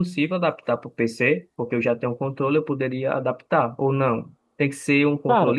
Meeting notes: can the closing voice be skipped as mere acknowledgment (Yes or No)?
Yes